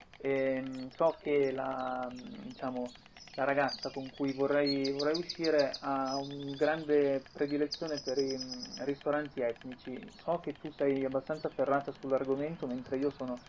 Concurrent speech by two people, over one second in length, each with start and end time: none

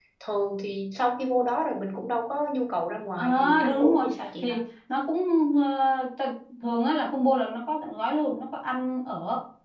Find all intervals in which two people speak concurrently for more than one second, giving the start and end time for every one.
3.2-4.6

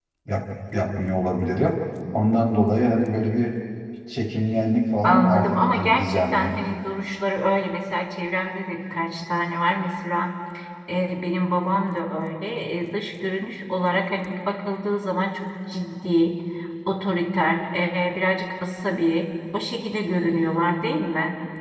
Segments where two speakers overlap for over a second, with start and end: 5.0-6.5

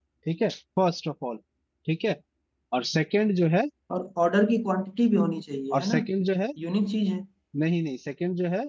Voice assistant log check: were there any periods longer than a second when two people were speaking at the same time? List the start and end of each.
none

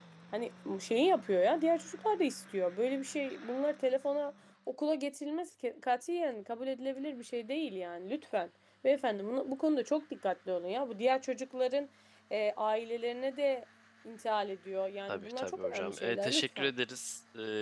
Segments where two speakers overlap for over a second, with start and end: 15.1-16.7

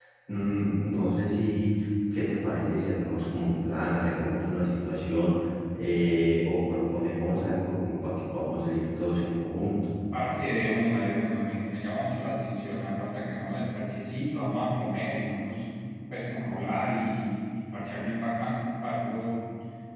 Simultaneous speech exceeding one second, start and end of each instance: none

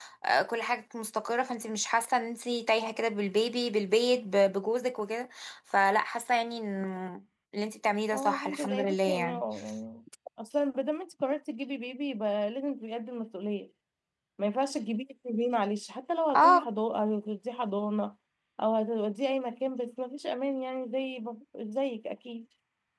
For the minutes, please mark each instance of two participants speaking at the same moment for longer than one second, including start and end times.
8.1-9.4

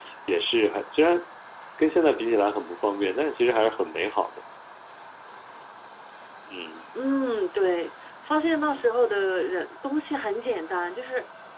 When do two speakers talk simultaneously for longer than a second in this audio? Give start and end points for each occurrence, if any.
none

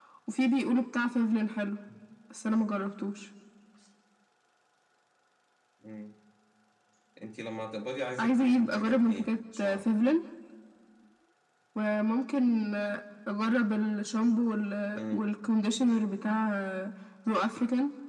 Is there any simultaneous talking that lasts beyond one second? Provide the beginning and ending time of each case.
8.2-9.9

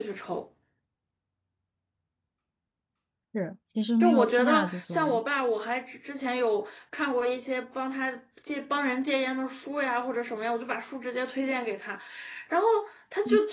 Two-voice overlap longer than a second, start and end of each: 4.0-5.2

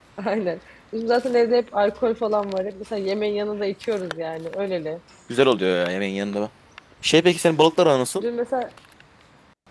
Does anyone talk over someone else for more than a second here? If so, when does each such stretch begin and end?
none

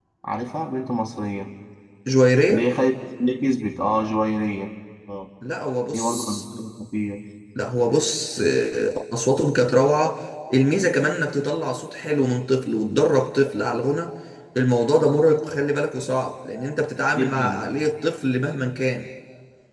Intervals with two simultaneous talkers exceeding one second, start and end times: none

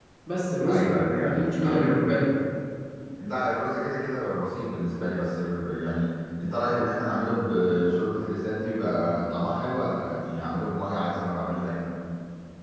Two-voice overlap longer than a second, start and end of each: 0.7-2.2

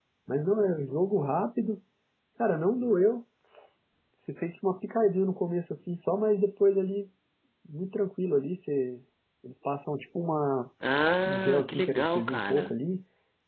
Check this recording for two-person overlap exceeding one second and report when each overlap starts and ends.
11.2-12.7

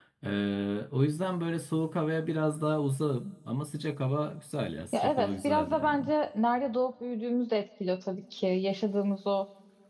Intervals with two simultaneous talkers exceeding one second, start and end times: 4.9-6.1

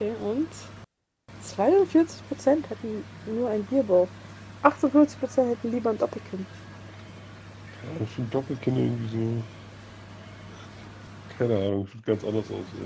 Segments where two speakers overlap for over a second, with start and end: none

